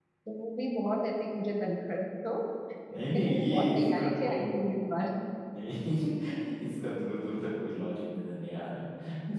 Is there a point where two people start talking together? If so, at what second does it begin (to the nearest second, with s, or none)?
3 s